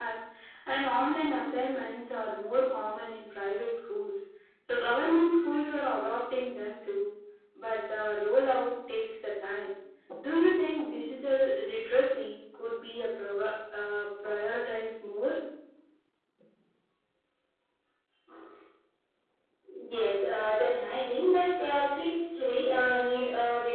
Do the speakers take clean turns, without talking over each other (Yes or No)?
Yes